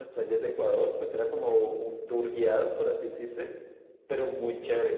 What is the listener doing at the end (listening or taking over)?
listening